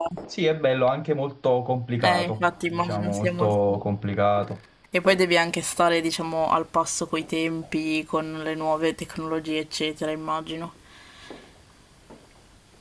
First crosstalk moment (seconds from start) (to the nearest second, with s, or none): 2 s